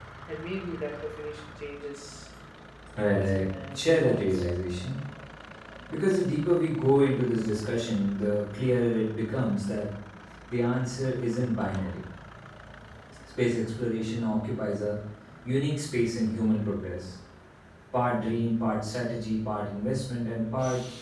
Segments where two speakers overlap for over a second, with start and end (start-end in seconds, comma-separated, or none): 3.1-4.5